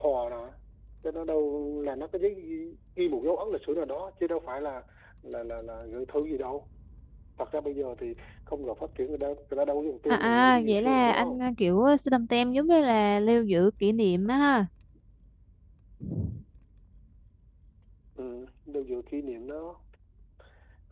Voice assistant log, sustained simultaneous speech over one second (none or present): present